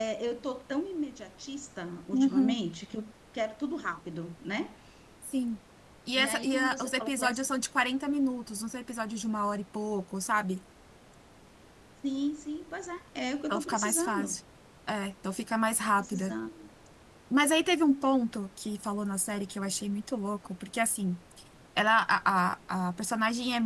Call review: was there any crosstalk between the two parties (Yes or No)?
Yes